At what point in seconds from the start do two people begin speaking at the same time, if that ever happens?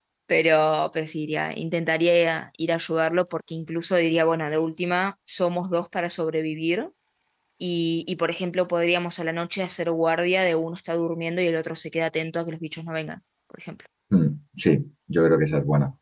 none

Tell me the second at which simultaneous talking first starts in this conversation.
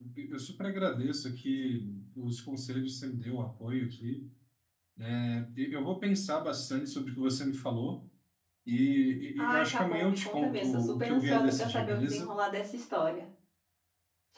9 s

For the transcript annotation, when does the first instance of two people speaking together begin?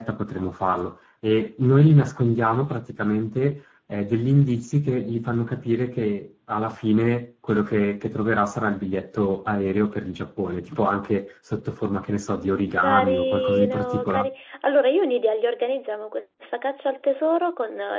13 s

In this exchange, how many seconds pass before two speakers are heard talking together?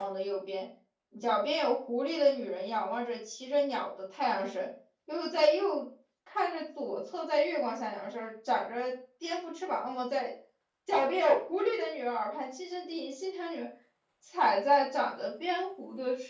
none

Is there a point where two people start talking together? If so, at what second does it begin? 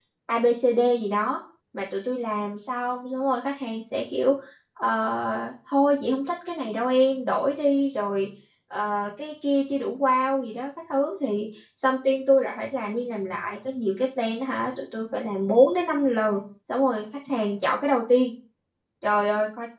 none

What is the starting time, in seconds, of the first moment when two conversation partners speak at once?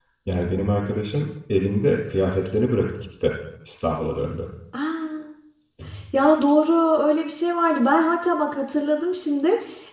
none

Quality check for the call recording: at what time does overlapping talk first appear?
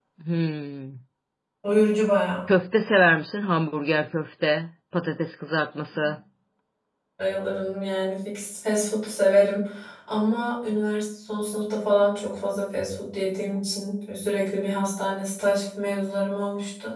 none

